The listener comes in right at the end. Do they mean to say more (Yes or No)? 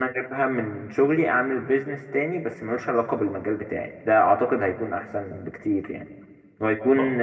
No